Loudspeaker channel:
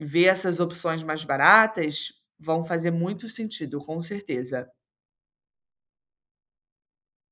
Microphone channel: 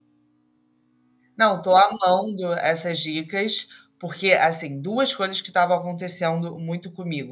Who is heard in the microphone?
user only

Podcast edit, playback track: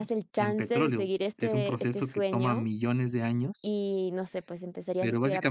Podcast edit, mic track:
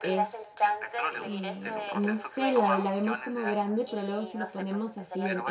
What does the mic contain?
both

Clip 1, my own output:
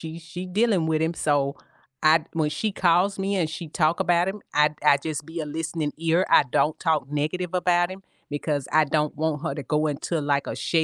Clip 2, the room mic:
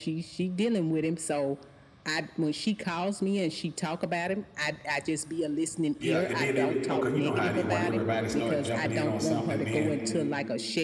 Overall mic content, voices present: both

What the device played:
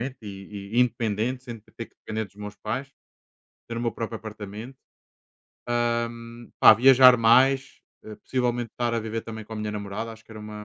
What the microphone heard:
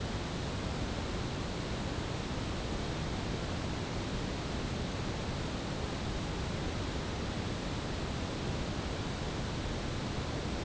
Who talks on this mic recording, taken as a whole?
neither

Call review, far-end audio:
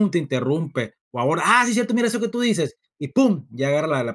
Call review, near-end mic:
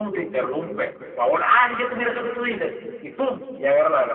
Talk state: echo only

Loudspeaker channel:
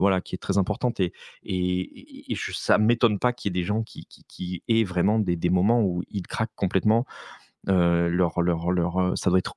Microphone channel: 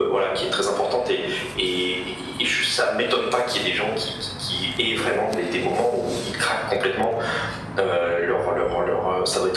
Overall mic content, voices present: echo only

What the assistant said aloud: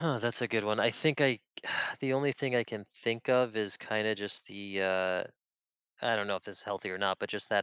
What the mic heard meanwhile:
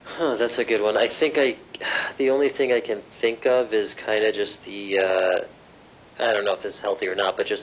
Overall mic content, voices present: echo only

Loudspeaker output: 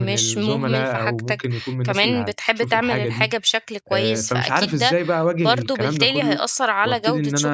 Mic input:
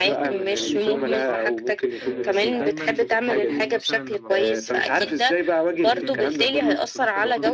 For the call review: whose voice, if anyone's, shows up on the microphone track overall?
both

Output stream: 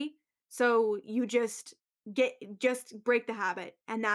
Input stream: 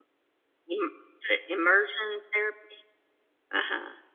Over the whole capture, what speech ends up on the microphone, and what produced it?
user only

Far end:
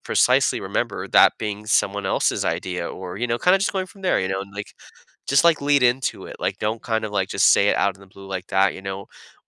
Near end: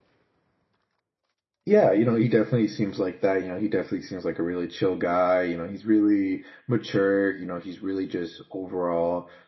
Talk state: user only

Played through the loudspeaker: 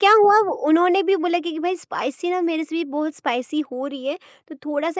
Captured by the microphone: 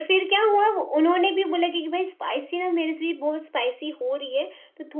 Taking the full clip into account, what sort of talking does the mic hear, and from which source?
echo only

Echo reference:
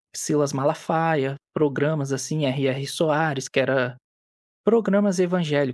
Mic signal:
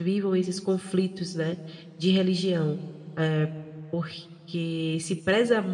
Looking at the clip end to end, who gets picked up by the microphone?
user only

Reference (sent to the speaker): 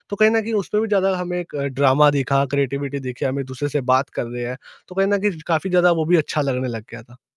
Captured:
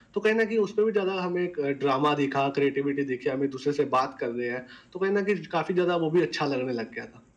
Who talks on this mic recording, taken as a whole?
echo only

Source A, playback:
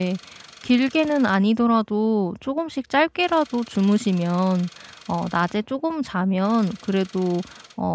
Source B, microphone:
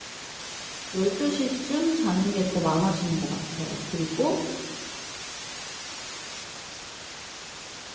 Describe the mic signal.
user only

